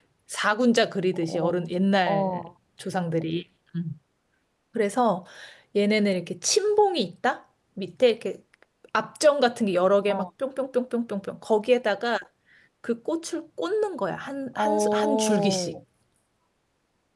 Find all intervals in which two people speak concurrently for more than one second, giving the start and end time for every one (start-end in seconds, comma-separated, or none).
14.6-15.8